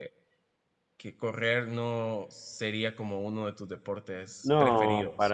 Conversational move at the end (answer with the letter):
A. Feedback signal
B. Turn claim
B